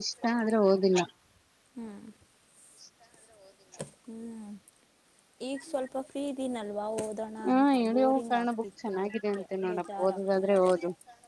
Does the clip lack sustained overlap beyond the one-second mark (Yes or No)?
No